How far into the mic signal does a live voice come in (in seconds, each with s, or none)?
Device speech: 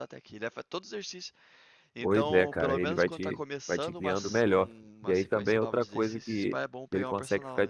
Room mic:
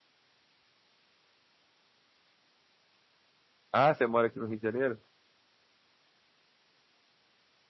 3.7 s